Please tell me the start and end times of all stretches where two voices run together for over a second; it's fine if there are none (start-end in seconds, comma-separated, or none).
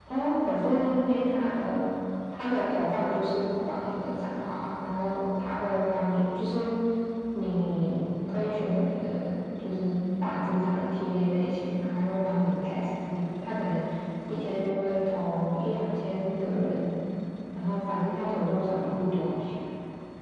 none